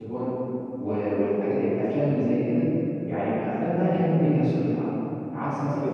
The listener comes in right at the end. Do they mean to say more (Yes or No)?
No